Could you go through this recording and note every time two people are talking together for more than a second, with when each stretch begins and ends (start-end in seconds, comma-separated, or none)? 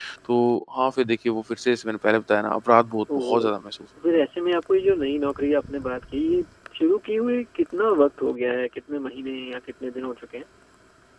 none